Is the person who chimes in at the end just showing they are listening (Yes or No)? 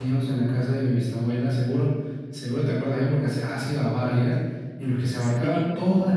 Yes